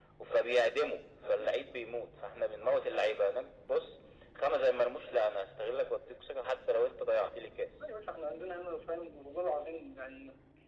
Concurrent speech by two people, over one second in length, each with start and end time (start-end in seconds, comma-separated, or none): none